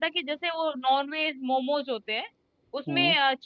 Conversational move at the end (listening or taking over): listening